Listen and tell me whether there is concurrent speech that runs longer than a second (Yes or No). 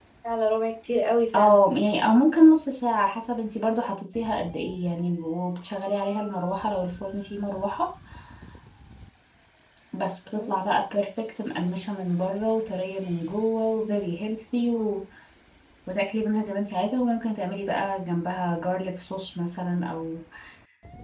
No